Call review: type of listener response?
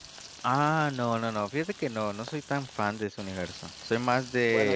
listening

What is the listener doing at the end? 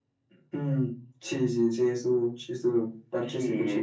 taking over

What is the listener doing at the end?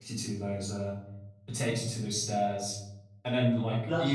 listening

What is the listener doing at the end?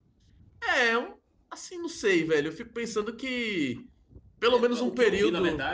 taking over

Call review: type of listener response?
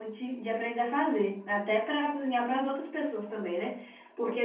listening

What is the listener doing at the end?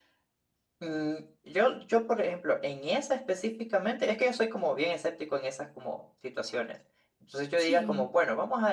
listening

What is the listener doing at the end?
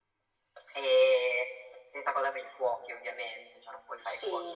taking over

